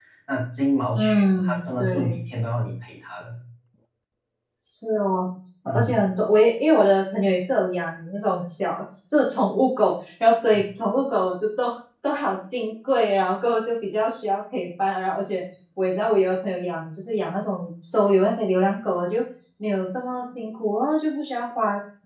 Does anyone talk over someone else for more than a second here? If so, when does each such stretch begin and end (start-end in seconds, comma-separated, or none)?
0.9-2.2